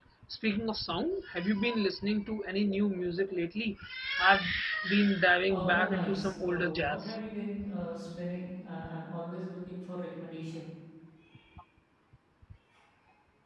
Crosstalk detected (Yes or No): Yes